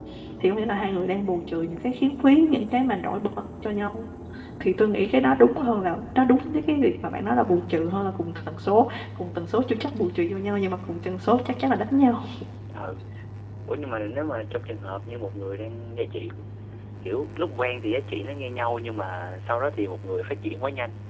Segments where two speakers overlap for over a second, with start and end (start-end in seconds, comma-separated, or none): none